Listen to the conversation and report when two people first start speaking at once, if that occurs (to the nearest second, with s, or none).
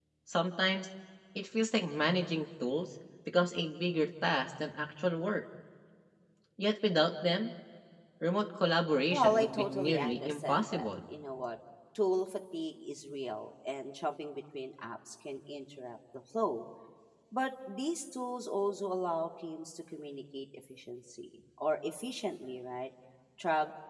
9 s